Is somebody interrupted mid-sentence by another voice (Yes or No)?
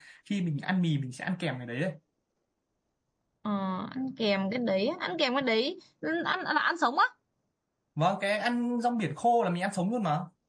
No